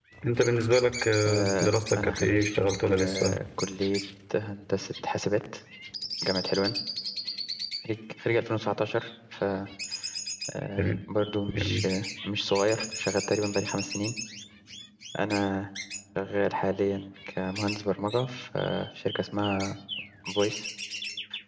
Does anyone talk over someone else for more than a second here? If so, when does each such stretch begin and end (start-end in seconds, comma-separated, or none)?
1.3-2.5